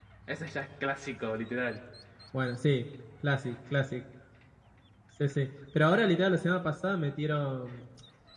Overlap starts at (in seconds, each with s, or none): none